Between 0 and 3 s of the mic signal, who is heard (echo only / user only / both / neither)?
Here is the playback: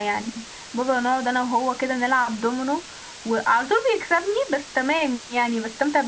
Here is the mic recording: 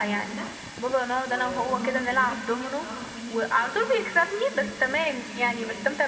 both